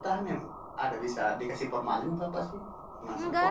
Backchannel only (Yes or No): No